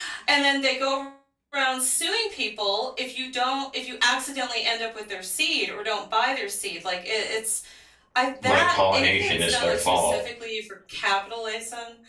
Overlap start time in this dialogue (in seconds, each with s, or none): 8.4 s